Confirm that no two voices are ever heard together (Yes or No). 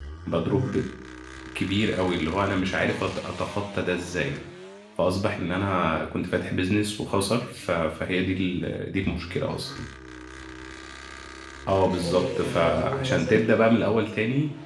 No